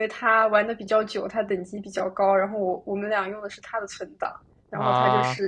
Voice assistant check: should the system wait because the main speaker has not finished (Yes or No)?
Yes